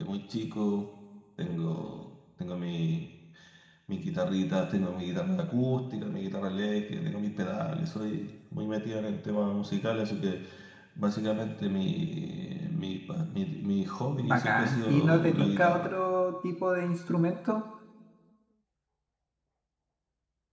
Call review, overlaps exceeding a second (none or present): present